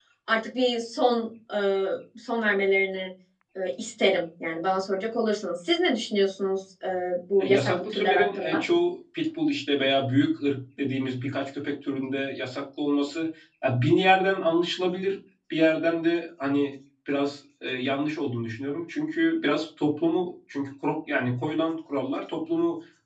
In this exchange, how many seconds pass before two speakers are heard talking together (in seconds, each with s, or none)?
7.4 s